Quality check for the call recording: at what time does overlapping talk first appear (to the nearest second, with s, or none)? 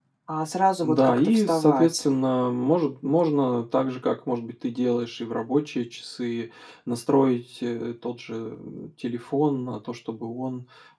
1 s